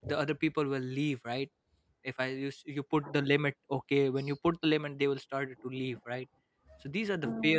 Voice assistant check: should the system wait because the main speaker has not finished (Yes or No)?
Yes